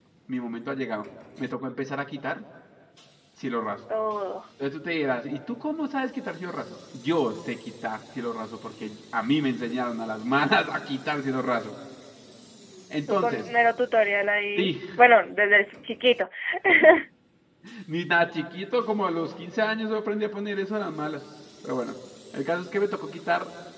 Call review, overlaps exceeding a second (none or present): none